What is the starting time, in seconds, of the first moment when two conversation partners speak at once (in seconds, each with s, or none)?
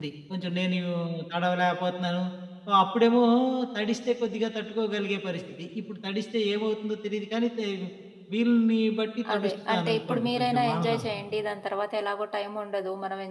9.2 s